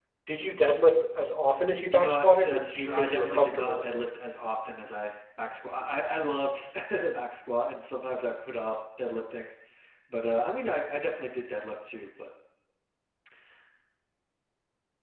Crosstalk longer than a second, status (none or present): present